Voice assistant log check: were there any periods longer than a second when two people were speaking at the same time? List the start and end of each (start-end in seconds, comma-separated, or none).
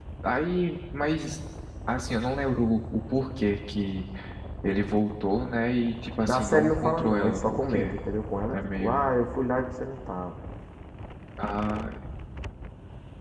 6.3-7.9